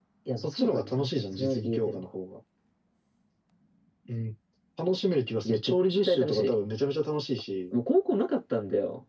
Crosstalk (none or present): present